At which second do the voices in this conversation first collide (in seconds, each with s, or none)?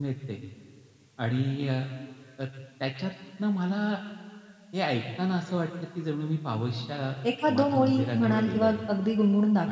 7.2 s